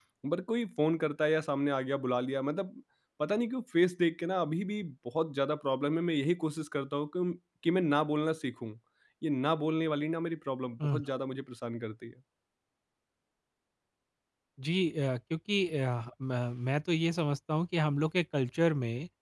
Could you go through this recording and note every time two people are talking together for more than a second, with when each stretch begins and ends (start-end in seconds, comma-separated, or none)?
none